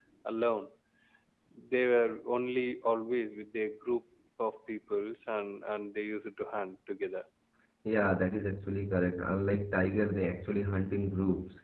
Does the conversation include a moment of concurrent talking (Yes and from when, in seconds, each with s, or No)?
No